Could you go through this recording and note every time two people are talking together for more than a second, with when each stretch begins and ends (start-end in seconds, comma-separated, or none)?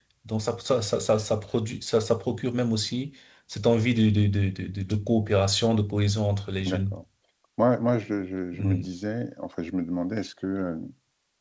none